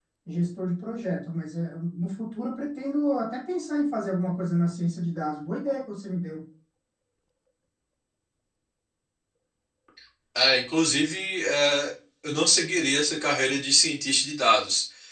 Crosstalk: none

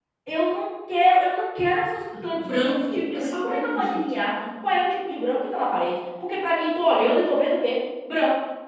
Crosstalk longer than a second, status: present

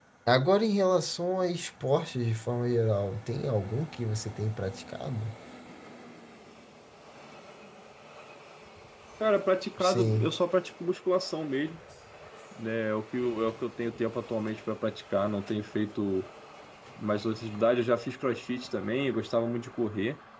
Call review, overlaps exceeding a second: none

